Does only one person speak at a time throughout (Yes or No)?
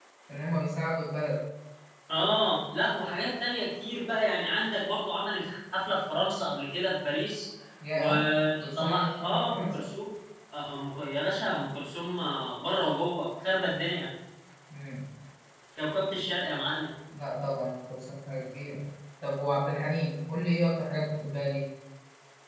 No